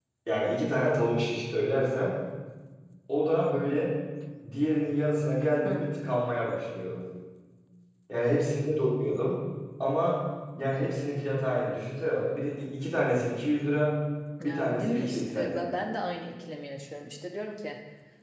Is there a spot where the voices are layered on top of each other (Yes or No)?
Yes